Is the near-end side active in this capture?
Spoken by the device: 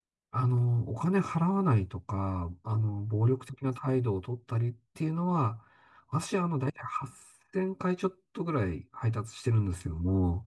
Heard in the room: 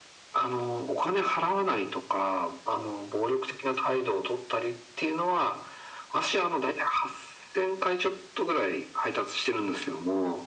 No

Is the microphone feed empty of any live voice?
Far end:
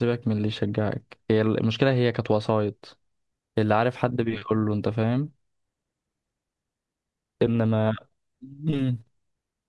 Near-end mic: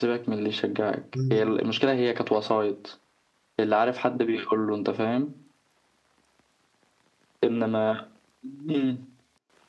No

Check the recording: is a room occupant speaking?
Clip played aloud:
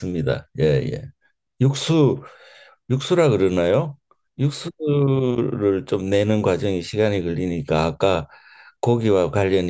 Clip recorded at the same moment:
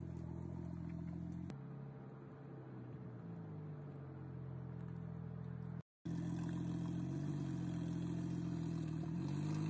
No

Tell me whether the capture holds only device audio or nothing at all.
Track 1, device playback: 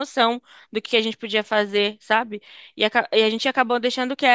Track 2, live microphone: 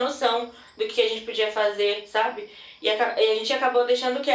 Yes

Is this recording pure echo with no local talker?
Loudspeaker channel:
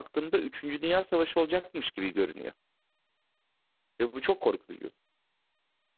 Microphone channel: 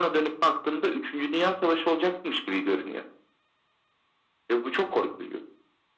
Yes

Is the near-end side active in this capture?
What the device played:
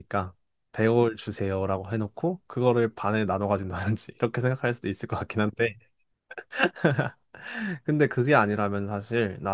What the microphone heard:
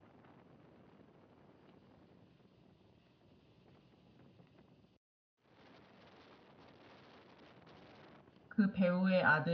Yes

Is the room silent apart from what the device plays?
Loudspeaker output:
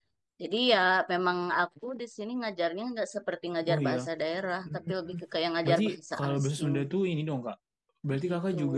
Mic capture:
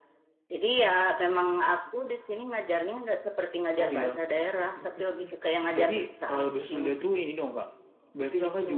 Yes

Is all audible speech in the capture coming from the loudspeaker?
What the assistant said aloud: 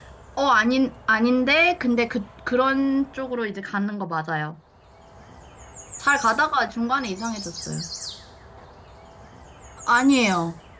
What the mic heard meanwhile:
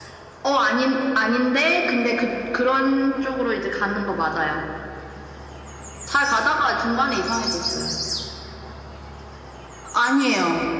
Yes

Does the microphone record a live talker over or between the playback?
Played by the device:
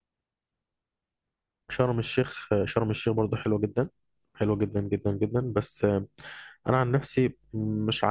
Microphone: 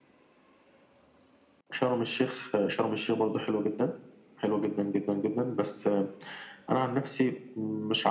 No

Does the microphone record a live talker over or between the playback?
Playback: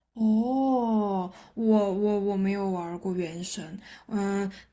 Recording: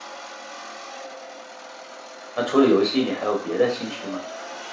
Yes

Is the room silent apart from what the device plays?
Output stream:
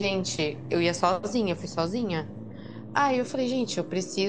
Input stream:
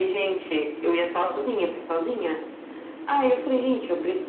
Yes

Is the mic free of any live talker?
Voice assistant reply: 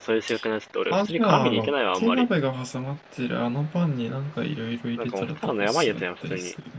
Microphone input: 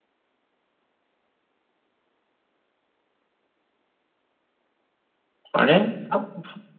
No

